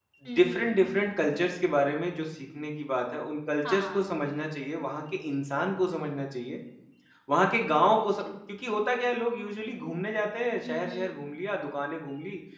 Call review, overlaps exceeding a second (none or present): none